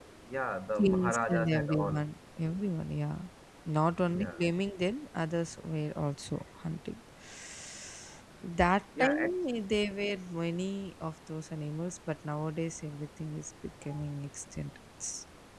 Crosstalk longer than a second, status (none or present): present